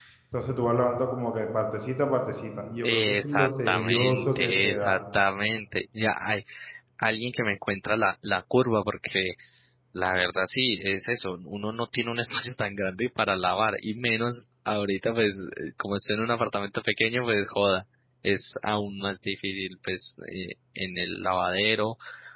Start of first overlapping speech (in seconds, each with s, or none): 2.8 s